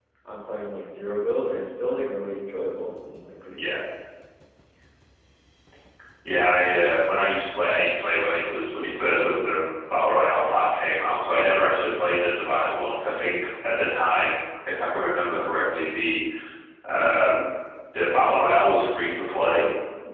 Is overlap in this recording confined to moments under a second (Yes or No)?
Yes